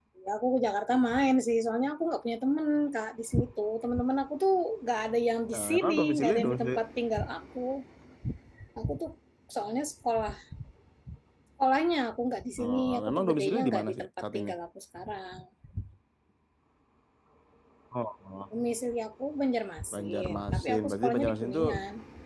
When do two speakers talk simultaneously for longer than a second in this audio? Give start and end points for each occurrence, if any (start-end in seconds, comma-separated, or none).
5.5-6.8, 12.6-14.5, 19.9-21.6